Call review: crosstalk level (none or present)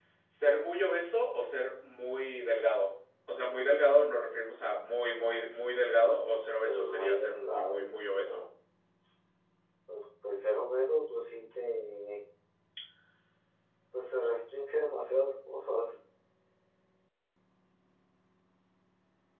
present